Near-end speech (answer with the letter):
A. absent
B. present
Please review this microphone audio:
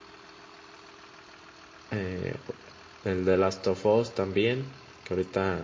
B